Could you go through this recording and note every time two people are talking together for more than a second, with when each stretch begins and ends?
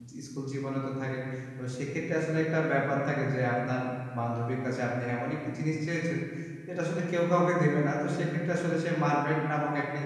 none

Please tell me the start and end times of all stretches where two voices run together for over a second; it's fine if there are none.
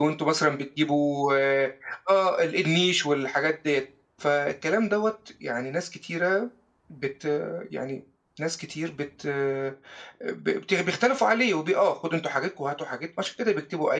none

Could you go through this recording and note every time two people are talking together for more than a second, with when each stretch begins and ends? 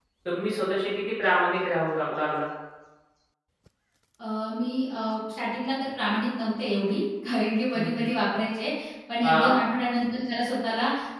none

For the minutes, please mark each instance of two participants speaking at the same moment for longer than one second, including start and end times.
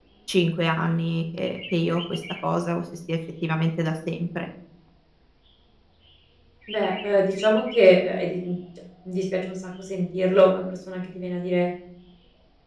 none

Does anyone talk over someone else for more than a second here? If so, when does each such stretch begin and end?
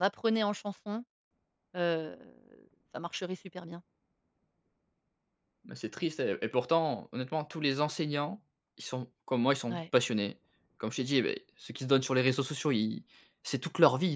none

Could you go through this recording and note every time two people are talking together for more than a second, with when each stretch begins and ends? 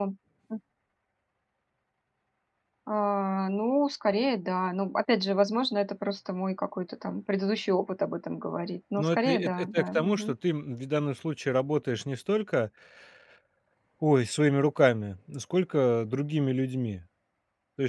9.0-10.4

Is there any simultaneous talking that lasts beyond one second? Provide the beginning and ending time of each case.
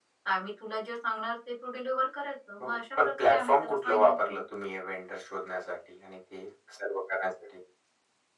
2.6-4.4

